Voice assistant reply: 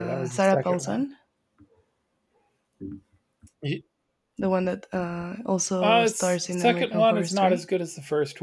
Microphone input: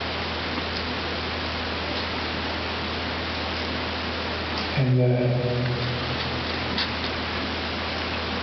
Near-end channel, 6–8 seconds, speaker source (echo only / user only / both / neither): neither